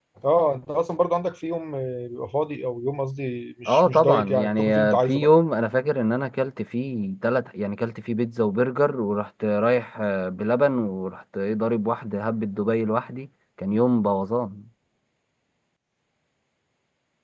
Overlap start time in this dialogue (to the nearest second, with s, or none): 4 s